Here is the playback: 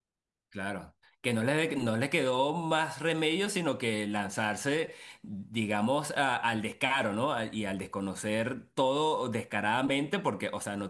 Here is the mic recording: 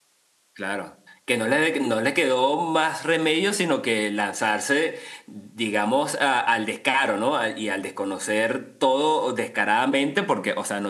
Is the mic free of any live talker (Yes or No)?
Yes